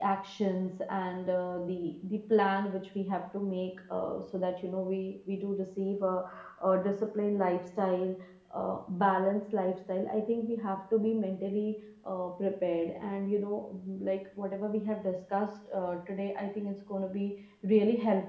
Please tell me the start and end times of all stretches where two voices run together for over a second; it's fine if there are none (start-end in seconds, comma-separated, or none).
none